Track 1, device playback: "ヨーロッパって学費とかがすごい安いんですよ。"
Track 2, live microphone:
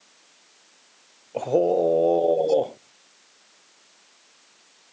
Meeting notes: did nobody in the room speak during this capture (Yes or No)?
No